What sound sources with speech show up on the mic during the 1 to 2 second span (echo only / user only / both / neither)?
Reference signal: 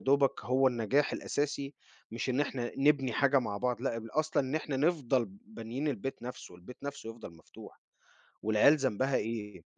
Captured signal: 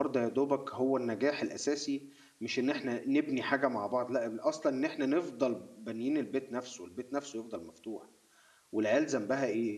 echo only